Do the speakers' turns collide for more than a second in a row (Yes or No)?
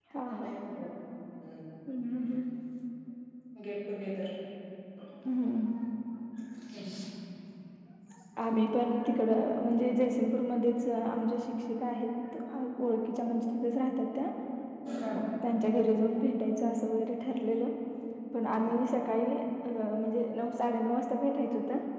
No